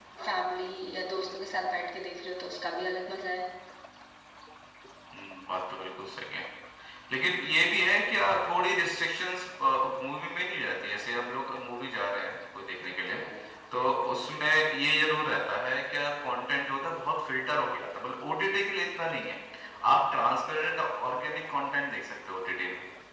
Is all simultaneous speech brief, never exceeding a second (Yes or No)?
Yes